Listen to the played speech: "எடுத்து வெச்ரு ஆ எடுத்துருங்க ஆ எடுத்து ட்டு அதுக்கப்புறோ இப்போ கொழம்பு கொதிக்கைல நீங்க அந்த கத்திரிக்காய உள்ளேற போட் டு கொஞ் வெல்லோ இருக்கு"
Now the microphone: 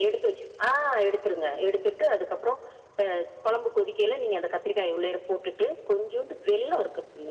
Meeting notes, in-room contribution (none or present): none